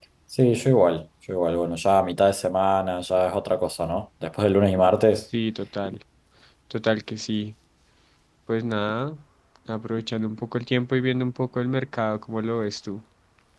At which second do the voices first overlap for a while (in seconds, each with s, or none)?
none